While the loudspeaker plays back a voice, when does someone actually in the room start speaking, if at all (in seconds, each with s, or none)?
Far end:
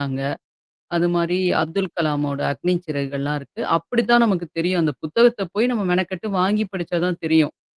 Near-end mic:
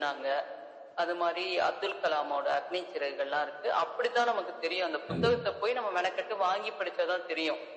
5.0 s